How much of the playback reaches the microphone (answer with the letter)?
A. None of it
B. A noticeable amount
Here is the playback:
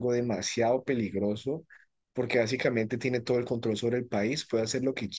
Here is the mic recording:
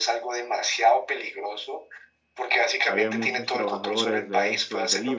B